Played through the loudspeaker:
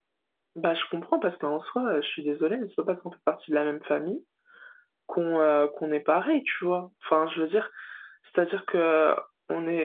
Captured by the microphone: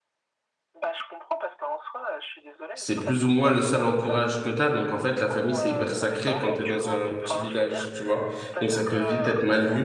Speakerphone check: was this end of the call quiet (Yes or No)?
No